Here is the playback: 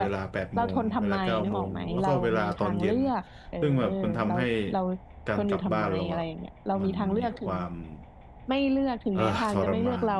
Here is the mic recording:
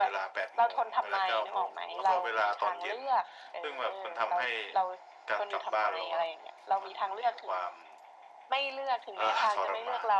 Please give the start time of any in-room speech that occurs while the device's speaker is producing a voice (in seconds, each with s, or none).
none